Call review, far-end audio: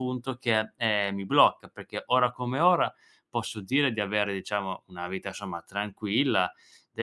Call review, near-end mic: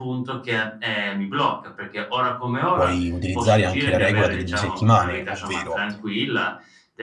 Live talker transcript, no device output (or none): puoi utilizzare anche la regola delle 2 settimane, ovvero: